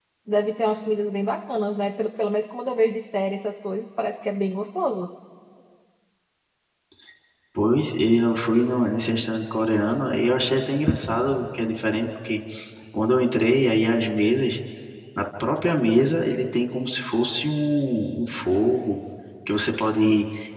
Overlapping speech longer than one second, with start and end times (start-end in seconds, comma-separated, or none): none